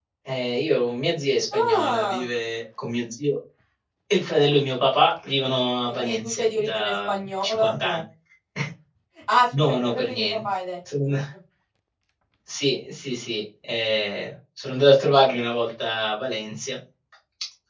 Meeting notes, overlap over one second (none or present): present